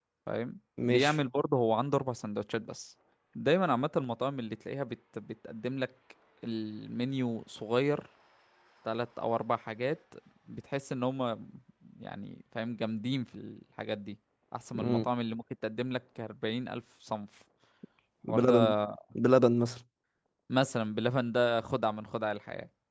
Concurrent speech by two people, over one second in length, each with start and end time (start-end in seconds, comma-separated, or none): none